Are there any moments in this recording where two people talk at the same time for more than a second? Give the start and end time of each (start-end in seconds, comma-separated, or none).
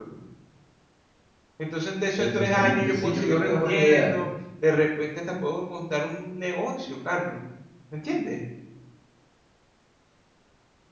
2.2-4.1